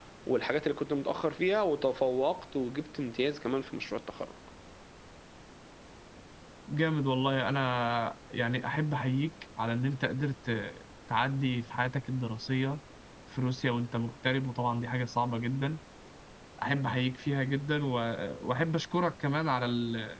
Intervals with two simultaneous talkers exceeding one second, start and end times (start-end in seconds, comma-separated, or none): none